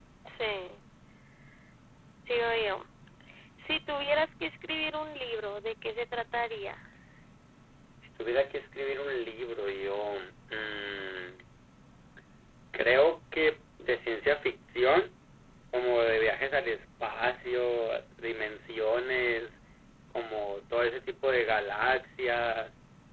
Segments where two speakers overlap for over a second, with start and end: none

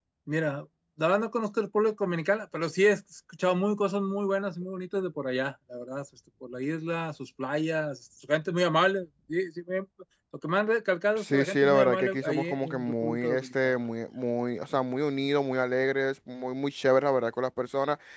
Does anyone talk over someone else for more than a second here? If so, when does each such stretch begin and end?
11.2-13.7

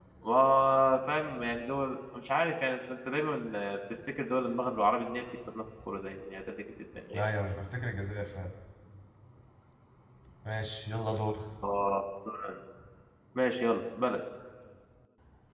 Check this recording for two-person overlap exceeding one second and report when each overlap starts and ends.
none

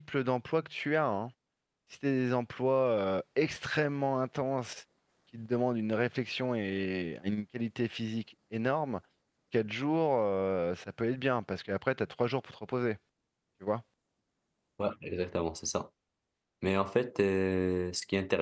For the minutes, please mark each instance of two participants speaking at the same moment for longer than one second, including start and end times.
none

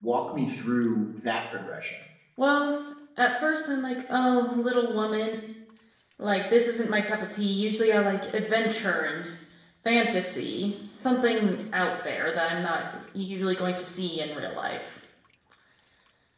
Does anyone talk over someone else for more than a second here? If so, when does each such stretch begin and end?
none

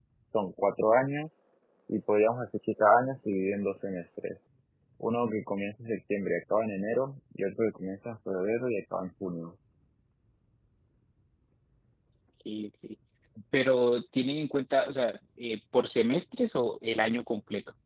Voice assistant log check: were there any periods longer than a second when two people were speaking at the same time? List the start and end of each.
none

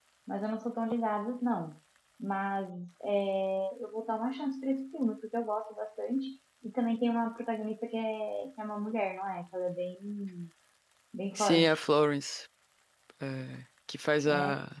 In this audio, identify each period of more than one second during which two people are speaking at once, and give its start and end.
none

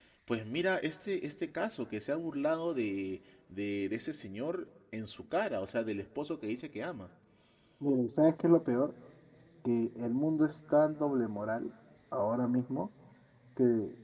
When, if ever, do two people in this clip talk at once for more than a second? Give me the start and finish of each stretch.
none

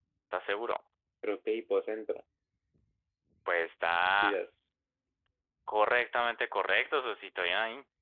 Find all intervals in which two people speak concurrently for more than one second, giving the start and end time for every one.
none

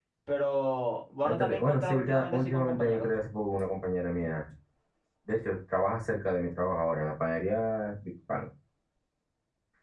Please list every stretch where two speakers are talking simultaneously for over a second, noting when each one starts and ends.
1.2-3.1

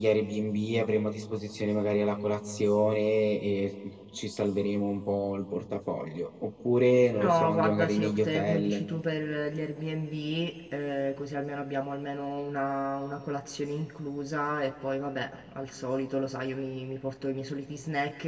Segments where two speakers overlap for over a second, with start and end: 7.1-8.8

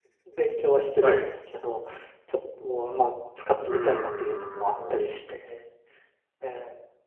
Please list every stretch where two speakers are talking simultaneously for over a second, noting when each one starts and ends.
3.7-5.0

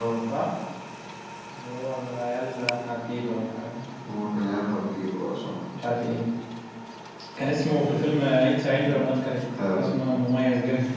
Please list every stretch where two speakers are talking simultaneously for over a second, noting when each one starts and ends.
none

